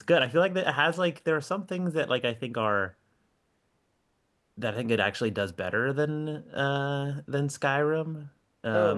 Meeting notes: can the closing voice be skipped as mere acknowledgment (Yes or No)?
No